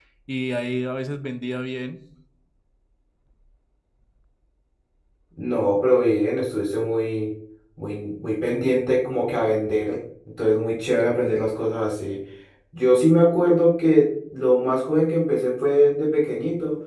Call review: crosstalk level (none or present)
none